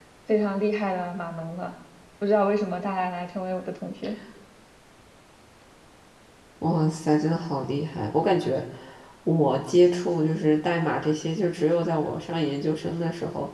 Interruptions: none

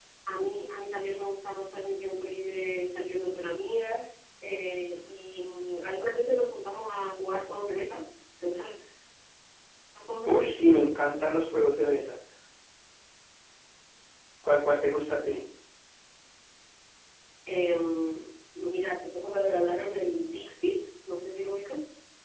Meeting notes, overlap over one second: none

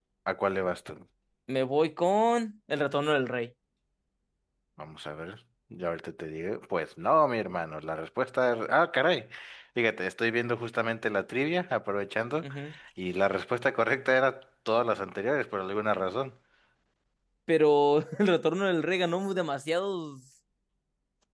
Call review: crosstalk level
none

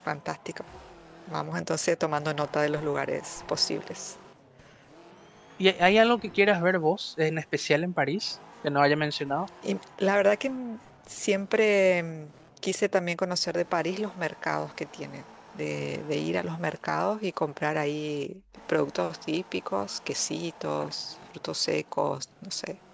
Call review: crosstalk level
none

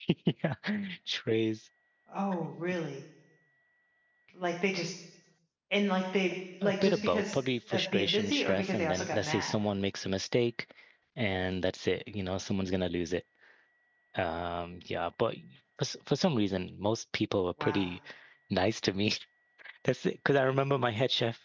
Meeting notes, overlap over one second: present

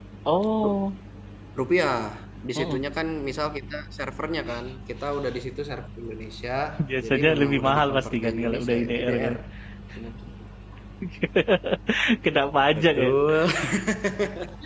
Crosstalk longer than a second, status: present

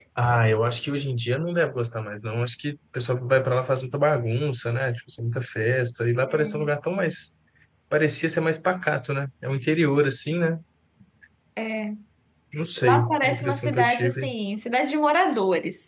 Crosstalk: present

